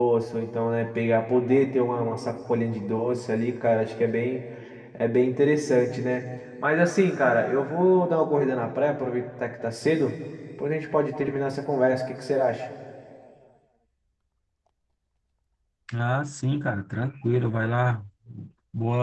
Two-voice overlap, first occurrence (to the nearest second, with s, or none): none